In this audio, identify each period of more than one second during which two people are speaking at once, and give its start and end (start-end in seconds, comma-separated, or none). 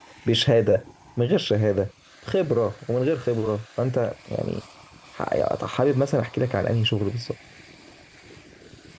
none